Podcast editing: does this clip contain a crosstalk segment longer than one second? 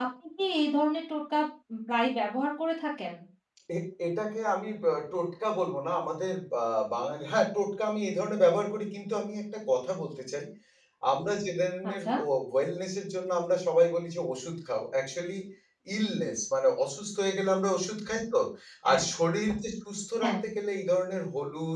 No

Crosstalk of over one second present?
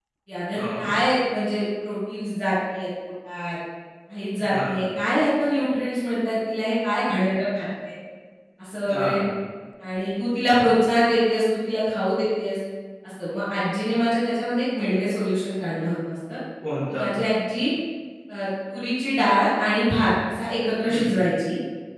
No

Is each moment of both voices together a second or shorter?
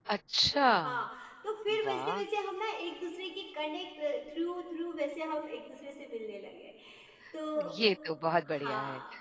Yes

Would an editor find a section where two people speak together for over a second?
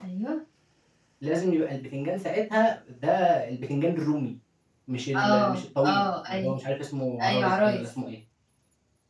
Yes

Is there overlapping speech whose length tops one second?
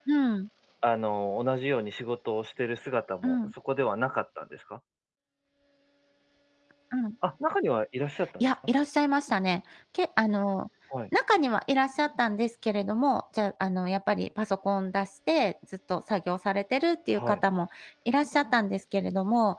No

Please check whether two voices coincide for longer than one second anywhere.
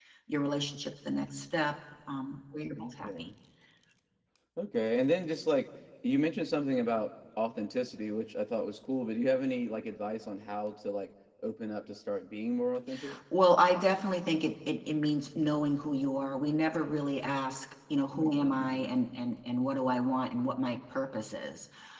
No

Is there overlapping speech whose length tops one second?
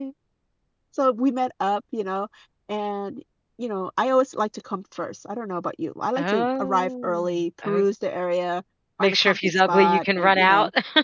Yes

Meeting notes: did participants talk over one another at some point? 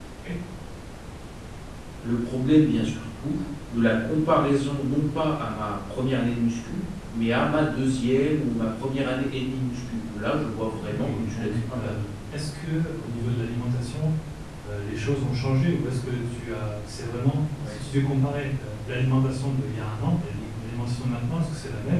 Yes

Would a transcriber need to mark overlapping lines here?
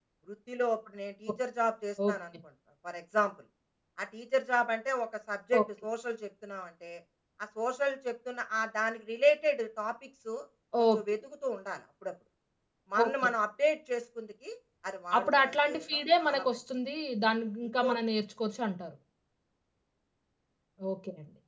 Yes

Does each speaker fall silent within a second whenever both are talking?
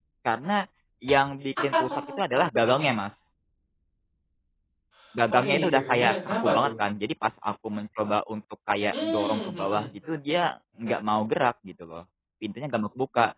No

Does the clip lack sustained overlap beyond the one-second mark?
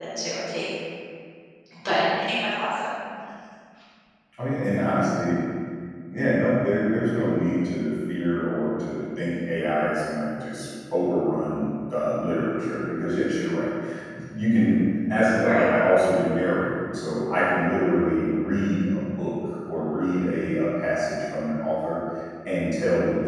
Yes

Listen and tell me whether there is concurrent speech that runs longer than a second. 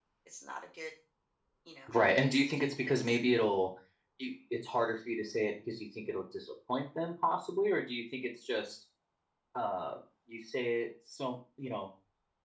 Yes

